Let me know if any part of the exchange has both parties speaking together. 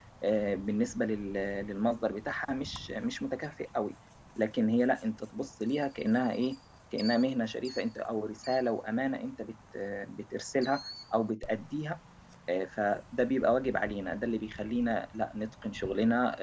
No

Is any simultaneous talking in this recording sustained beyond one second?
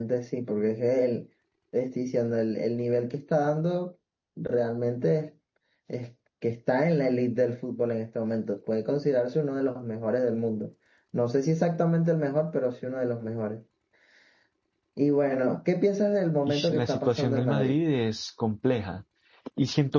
Yes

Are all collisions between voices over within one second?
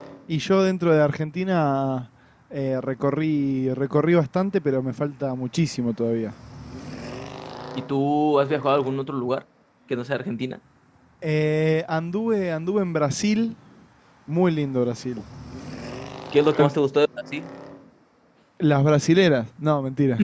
Yes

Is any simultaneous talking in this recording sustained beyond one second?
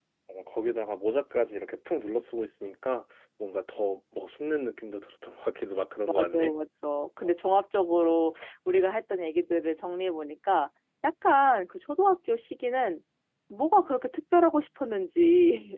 No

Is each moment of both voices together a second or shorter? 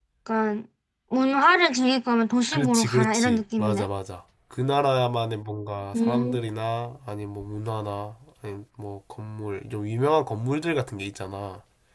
No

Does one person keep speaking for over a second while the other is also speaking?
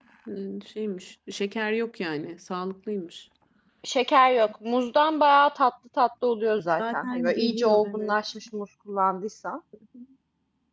Yes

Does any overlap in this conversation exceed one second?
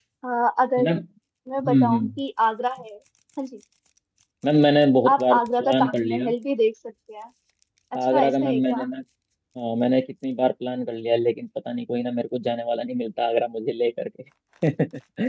Yes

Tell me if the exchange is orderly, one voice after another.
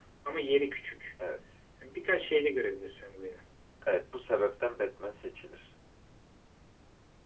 Yes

